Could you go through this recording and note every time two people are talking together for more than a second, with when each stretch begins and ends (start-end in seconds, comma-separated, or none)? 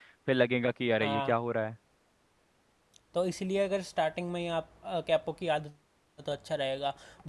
none